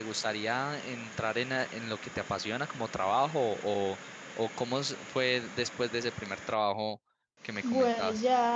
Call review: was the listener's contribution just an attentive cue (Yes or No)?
No